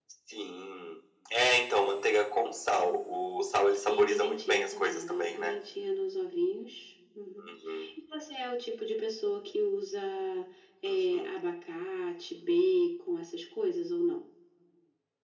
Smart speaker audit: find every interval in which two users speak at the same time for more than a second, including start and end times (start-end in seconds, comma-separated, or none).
3.9-5.5